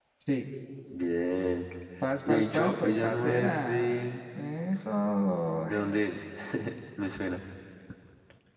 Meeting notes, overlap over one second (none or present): present